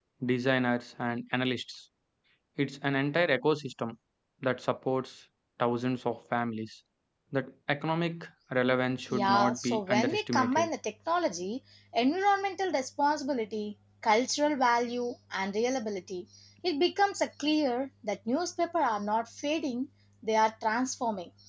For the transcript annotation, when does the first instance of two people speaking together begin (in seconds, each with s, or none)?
9.1 s